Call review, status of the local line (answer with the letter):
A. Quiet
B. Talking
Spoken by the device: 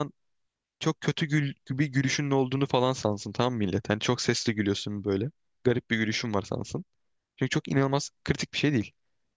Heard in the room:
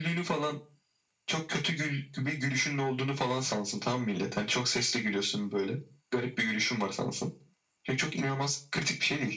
A